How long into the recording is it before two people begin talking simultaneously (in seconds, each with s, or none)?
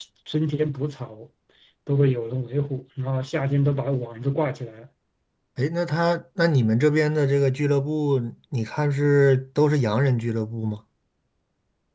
none